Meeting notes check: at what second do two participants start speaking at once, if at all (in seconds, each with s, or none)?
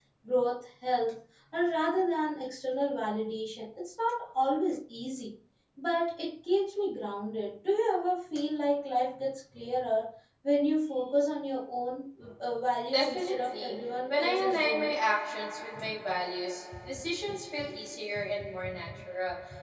12.9 s